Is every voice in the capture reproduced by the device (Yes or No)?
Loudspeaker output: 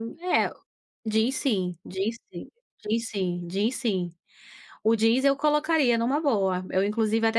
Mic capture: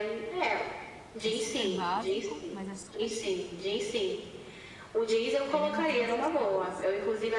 No